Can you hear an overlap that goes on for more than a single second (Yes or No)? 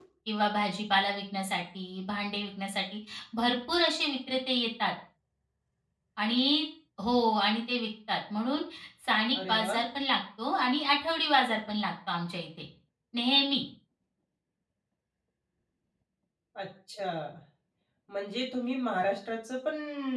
No